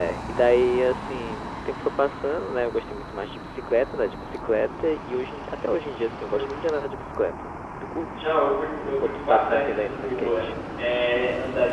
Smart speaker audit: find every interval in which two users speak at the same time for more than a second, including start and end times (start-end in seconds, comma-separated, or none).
9.0-10.4